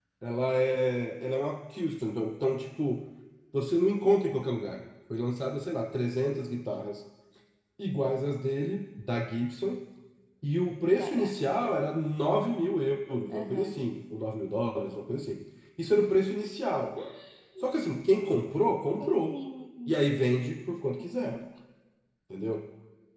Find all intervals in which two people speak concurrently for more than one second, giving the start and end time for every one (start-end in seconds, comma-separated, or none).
none